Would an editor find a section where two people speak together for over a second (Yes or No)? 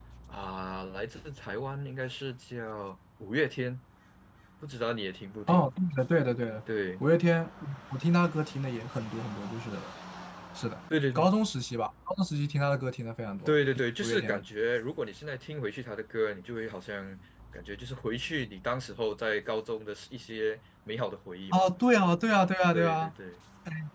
No